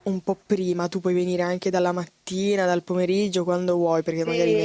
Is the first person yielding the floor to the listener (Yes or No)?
Yes